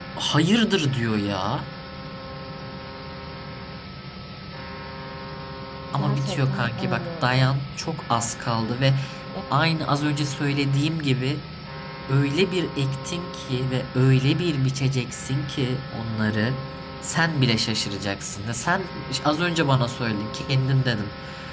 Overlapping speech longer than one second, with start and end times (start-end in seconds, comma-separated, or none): 5.9-7.5